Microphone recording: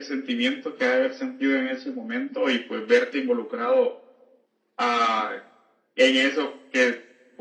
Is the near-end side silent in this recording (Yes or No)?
Yes